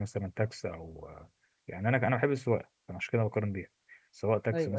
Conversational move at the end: listening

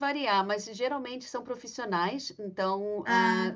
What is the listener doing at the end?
listening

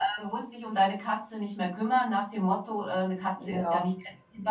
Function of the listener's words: listening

